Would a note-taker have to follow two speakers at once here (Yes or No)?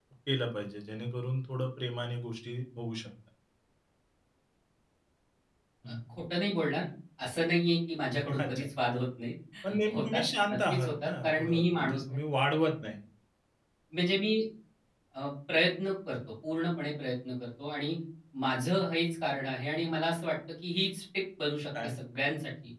Yes